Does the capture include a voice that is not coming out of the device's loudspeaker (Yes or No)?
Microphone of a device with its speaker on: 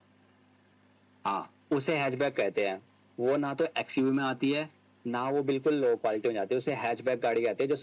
No